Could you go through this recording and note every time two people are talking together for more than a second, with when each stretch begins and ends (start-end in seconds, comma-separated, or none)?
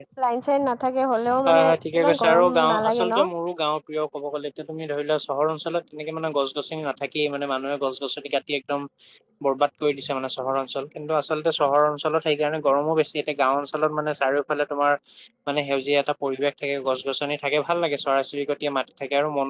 1.5-3.2